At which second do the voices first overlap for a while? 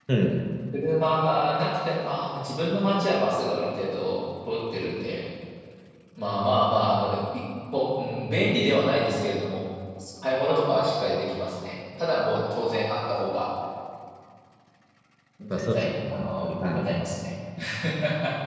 16 s

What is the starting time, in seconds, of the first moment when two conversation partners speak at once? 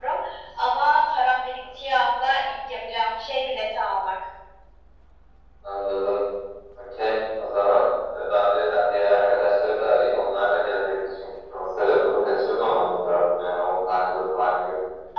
none

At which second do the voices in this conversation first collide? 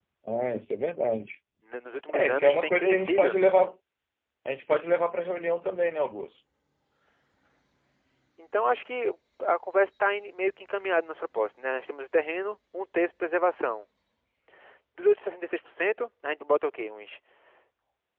2 s

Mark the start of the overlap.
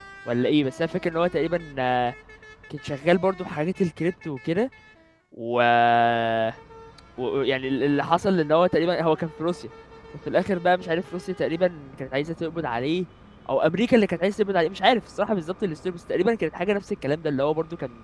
none

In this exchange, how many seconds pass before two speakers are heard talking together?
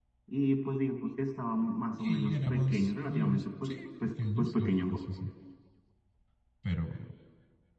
2 s

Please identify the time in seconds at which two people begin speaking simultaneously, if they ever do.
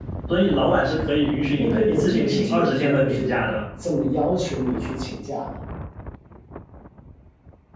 2 s

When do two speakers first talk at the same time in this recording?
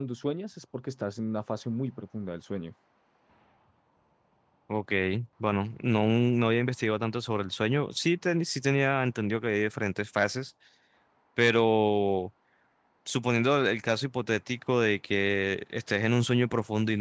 none

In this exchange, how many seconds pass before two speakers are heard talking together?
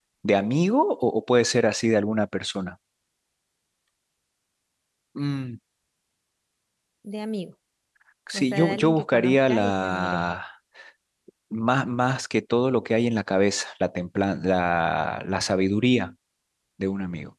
8 s

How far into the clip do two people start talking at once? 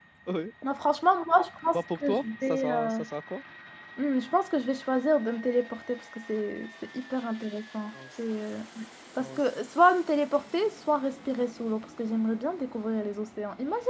2 s

